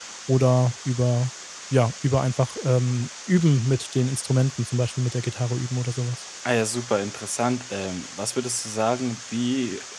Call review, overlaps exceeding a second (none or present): none